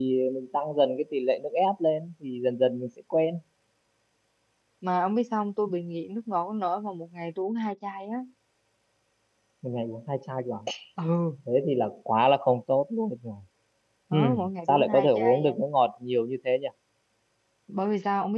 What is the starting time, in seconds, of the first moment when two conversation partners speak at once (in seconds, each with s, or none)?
14.1 s